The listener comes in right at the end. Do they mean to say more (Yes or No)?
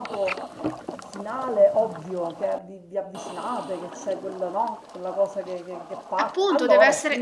Yes